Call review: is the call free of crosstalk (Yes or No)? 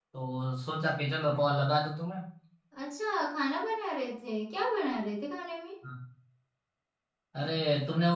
Yes